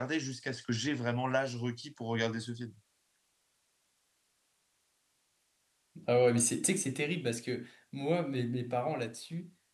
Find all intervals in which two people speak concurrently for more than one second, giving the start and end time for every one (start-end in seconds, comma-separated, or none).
none